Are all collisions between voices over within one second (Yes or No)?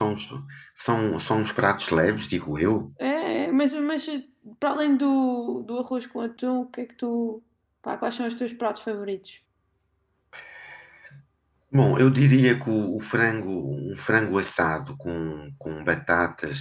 Yes